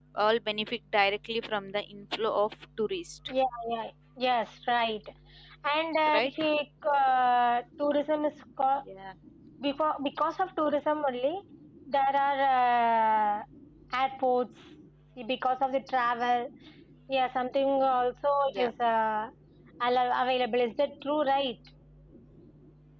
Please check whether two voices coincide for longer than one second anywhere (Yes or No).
No